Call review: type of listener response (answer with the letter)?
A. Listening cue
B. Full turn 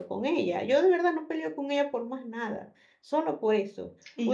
A